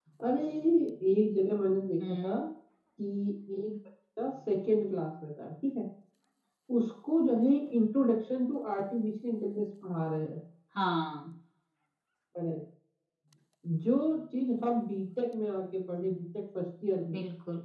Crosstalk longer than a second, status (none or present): none